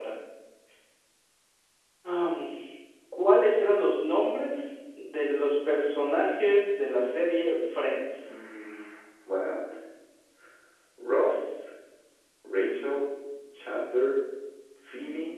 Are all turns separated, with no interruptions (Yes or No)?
Yes